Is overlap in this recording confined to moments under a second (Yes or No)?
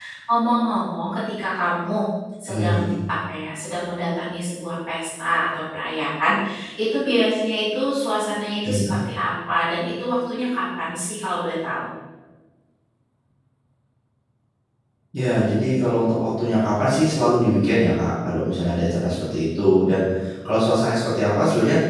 Yes